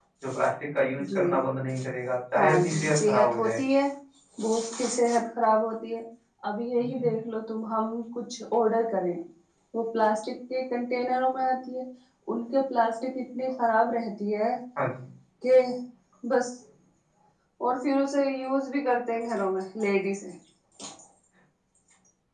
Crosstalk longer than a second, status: present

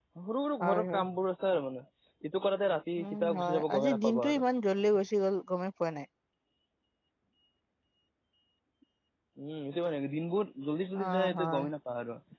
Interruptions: present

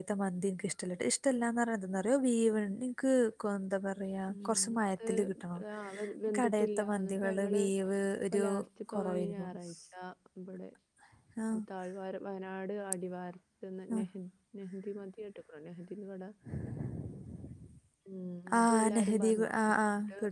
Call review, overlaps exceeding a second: present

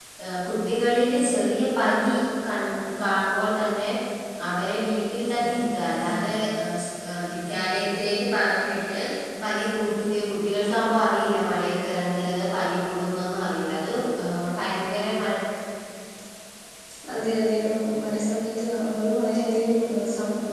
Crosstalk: none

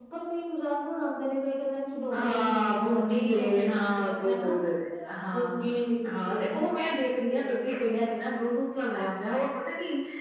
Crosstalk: present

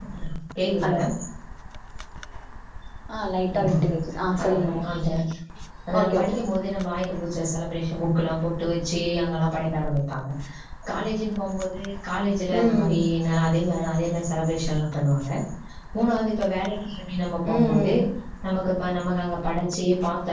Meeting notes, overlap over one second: none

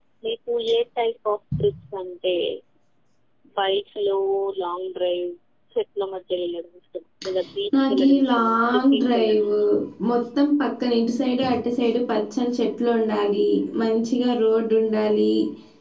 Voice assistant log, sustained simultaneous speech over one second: present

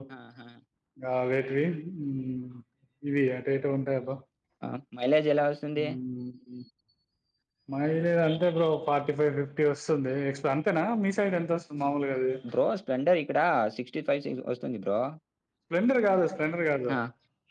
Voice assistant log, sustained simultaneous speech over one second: none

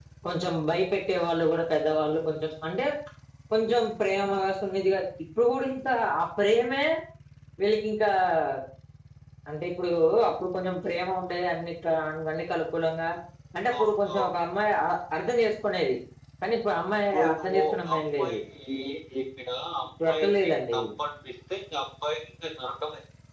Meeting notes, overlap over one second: present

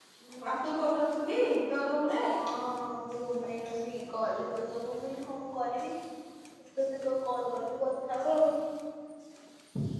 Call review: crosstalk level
none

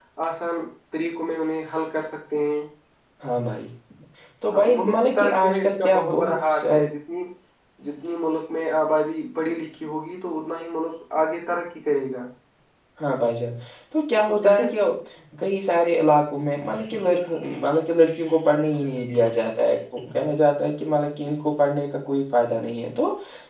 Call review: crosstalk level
present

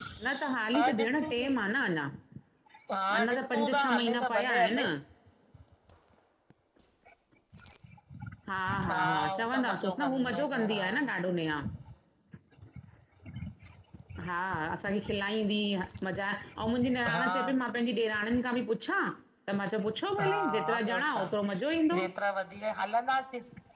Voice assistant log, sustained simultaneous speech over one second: present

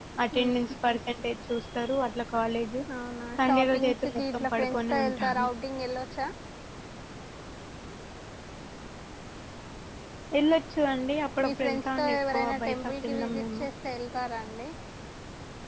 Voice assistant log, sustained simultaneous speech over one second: present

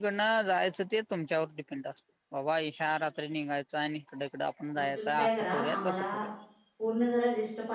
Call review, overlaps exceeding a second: present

